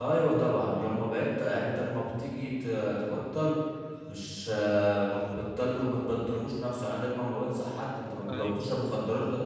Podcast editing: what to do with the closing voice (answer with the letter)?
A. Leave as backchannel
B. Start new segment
A